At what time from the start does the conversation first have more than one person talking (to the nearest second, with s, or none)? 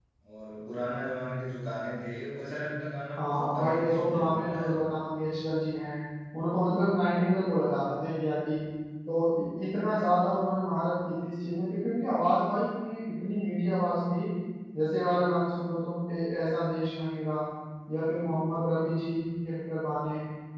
3 s